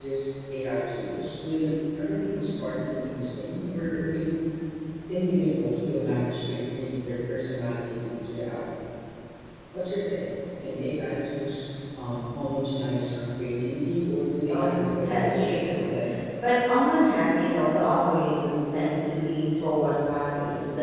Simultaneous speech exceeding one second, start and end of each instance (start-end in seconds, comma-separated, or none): 14.5-15.9